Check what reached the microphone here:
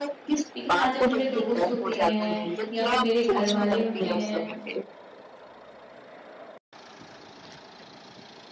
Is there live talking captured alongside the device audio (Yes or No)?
Yes